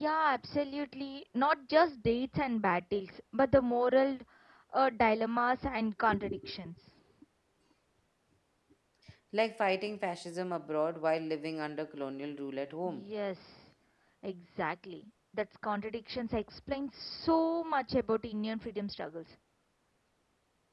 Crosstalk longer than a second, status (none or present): none